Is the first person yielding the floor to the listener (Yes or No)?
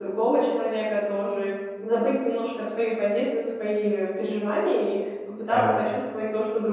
No